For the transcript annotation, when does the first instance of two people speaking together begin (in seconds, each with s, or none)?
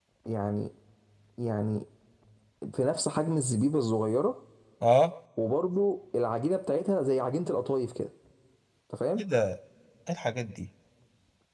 none